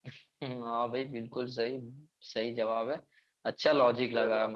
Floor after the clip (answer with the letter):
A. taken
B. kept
B